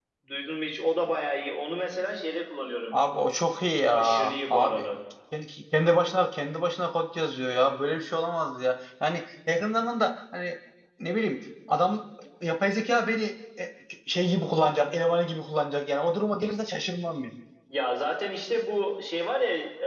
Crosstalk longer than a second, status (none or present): none